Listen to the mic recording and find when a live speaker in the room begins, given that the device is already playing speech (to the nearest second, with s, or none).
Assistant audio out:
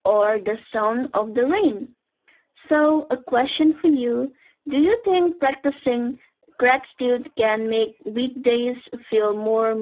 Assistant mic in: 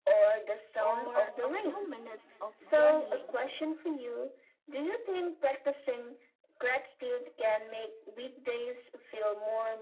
1 s